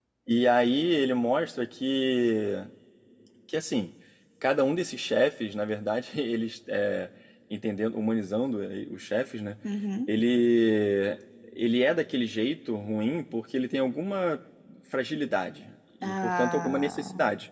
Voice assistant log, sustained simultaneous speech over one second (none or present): present